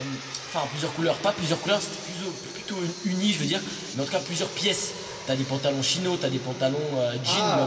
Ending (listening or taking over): listening